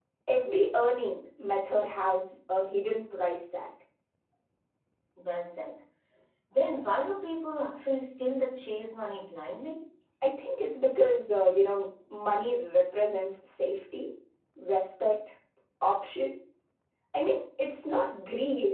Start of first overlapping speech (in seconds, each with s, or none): none